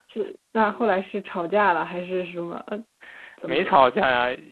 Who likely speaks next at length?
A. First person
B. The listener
B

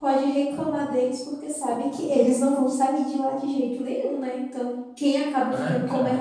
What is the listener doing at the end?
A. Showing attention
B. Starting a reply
A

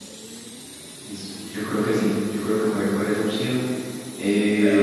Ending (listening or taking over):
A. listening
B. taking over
B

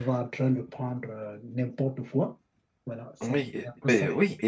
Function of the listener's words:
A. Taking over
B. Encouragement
A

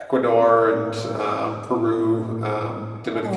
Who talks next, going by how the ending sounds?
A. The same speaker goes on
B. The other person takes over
A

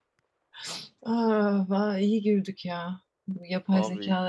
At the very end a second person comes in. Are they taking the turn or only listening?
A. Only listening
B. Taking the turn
A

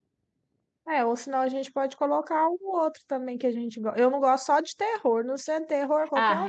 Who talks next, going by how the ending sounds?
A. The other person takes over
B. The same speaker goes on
A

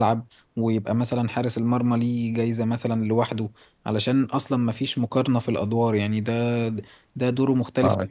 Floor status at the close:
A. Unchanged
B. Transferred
A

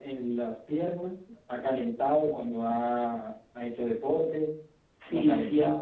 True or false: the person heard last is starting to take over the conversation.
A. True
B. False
A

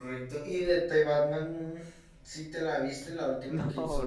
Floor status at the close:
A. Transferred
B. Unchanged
A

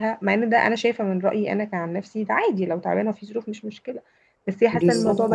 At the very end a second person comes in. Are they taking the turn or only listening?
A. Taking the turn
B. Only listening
B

